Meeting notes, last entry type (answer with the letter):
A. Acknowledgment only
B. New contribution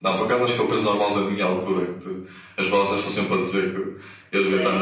B